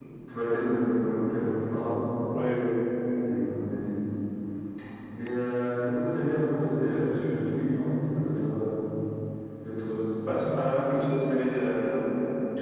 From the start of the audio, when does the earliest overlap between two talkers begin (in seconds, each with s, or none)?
none